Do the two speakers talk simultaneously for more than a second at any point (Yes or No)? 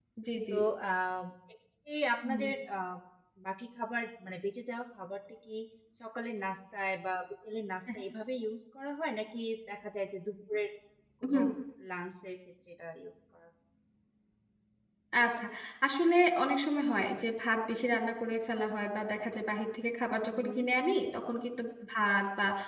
No